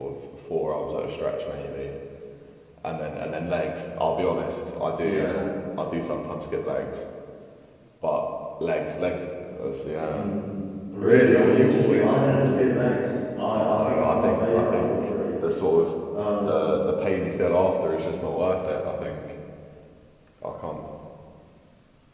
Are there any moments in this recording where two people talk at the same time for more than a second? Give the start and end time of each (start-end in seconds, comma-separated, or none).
11.0-12.8, 13.5-15.1